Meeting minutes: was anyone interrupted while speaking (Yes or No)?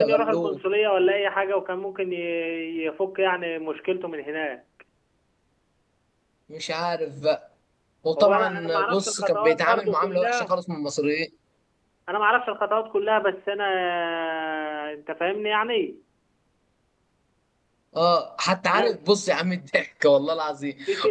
Yes